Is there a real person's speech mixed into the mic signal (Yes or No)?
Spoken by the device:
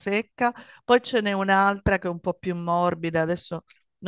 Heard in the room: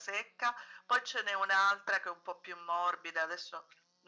No